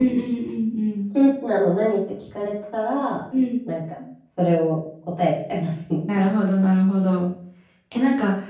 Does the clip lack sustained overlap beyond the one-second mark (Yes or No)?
Yes